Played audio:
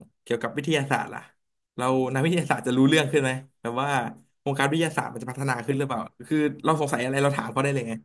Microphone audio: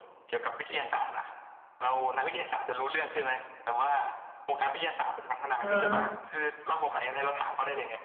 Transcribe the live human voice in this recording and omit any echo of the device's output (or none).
อ่า